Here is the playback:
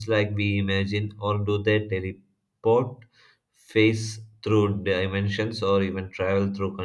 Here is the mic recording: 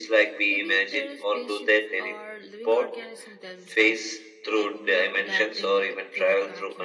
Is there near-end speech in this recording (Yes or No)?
Yes